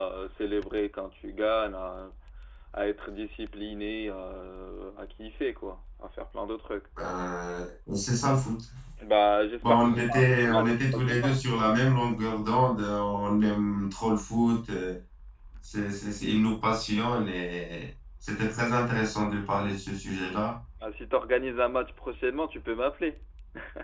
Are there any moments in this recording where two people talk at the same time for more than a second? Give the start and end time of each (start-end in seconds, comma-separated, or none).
9.6-11.4